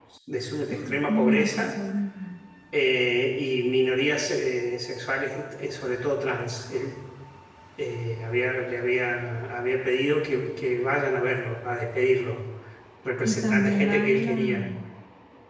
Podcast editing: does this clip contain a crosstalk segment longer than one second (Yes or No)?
Yes